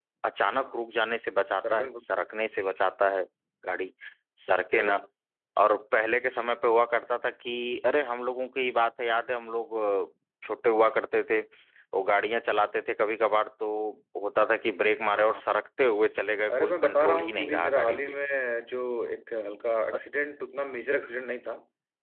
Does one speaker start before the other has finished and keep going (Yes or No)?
Yes